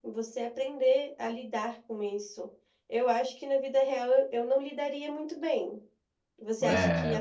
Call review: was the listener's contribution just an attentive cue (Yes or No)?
Yes